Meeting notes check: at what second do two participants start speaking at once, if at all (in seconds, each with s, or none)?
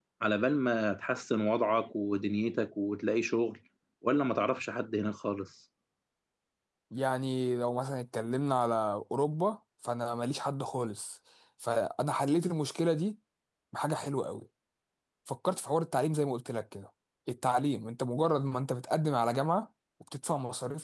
none